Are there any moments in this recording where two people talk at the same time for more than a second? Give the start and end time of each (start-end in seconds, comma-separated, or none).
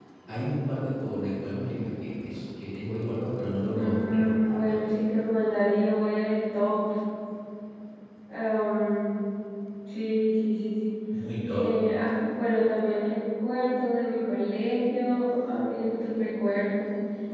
3.7-5.0